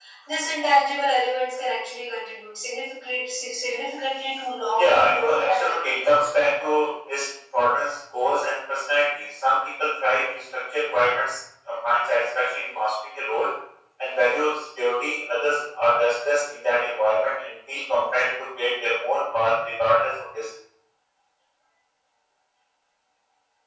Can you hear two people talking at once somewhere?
Yes, from 4.7 s

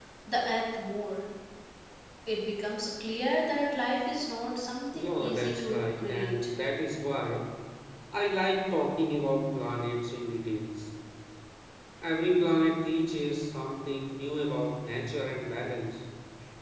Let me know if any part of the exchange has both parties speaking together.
Yes, from 4.9 s

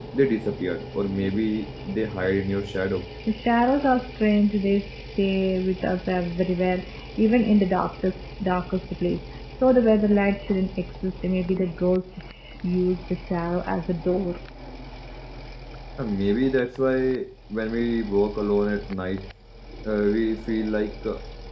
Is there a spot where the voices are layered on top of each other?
No

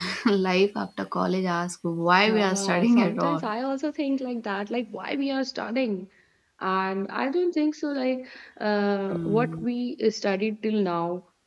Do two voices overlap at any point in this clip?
Yes, from 2.2 s

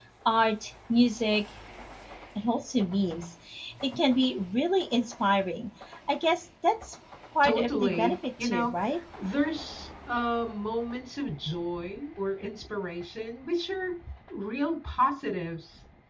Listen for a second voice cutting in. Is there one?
Yes, from 7.4 s

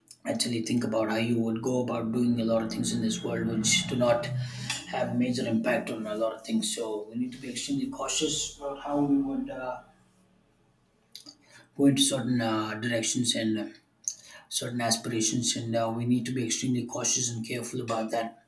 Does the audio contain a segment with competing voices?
No

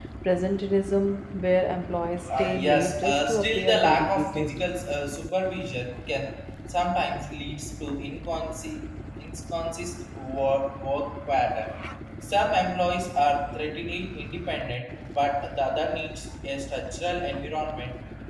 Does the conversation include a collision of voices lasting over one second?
Yes, from 2.3 s

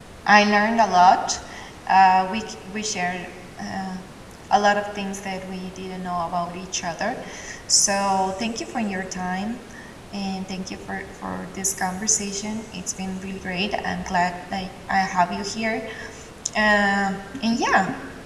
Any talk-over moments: No

